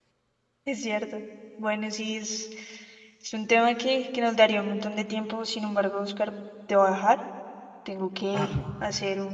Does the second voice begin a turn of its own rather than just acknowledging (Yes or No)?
No